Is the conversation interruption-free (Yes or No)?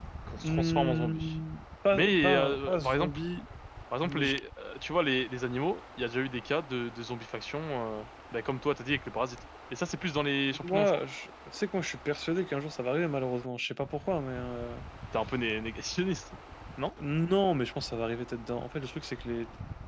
No